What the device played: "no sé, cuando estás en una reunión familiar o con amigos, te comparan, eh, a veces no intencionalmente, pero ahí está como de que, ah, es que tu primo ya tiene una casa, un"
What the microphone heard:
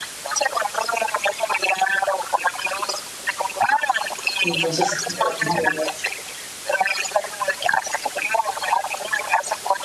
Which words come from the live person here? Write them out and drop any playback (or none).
Entonces, sí vale la pena volverse.